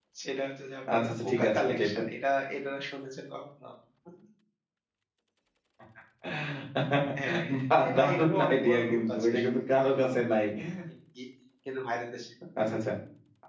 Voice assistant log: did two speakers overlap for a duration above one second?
Yes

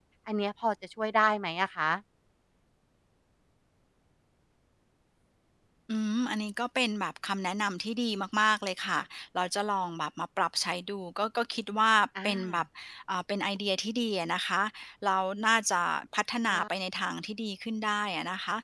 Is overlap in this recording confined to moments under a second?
Yes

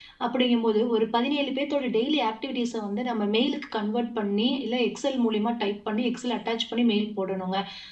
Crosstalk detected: No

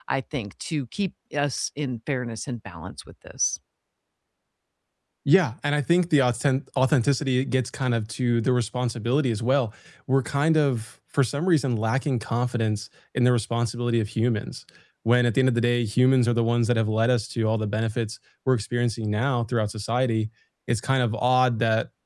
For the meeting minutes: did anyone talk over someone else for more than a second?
No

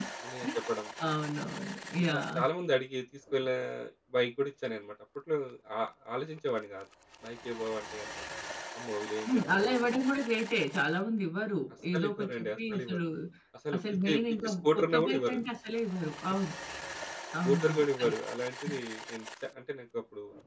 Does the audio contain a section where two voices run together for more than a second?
Yes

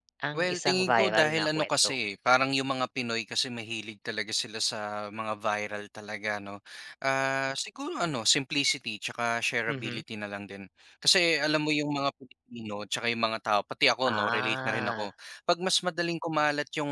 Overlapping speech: Yes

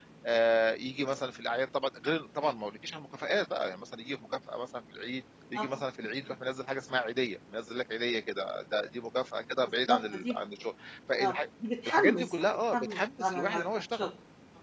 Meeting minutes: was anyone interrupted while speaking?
Yes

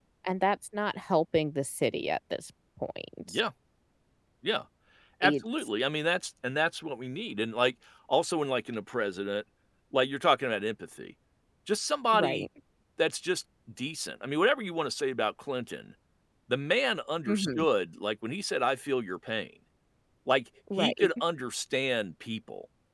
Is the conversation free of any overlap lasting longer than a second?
Yes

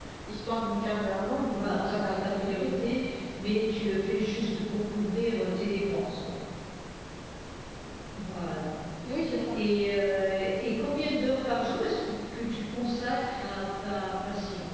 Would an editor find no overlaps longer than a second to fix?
No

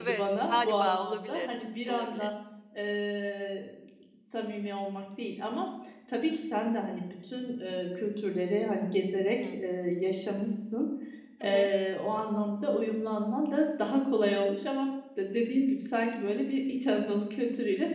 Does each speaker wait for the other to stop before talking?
No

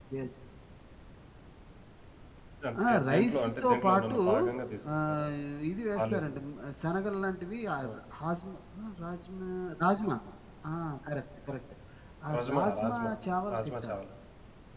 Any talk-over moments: Yes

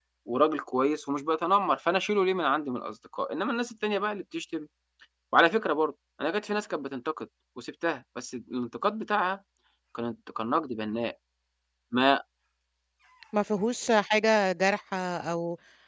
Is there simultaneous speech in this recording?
No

